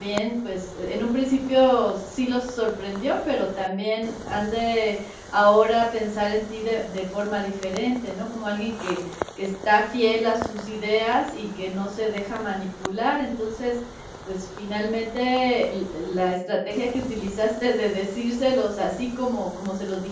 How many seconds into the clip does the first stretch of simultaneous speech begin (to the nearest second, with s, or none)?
none